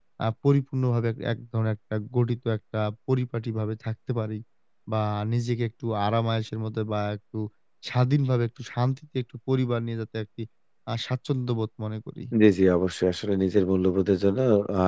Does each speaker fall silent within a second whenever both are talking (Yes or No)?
Yes